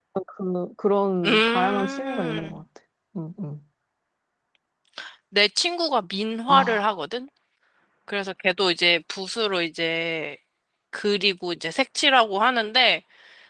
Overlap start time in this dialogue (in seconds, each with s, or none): 1.2 s